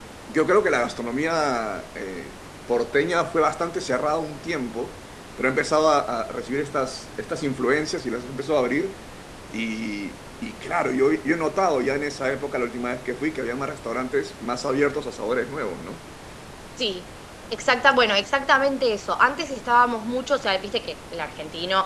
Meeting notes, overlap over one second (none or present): none